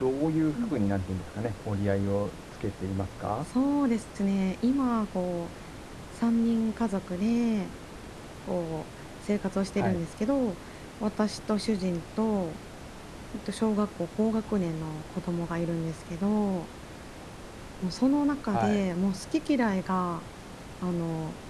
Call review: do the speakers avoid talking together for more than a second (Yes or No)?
Yes